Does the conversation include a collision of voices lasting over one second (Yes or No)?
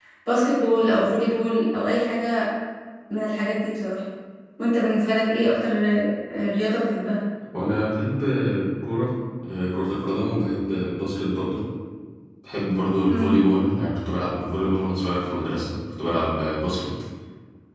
No